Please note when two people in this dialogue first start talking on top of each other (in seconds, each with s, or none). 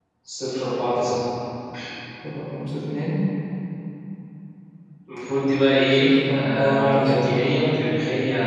5.9 s